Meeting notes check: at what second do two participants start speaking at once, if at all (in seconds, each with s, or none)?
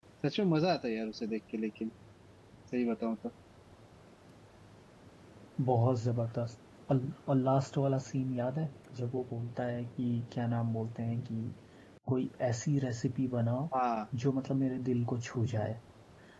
none